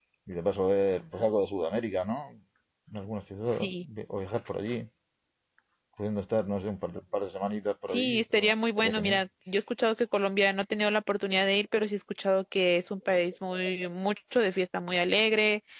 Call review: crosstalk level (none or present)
present